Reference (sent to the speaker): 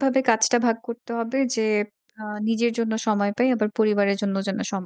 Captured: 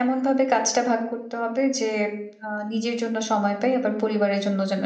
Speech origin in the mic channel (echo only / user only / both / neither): echo only